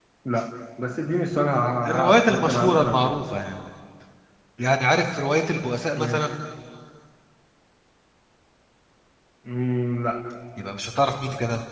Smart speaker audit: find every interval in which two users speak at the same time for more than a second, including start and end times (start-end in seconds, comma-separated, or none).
1.9-3.1